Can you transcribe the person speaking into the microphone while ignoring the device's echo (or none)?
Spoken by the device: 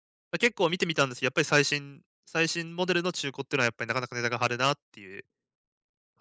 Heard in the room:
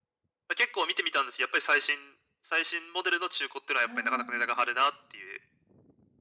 はい。